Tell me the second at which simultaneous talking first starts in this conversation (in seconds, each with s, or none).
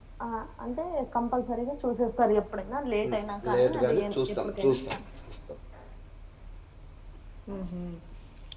3.5 s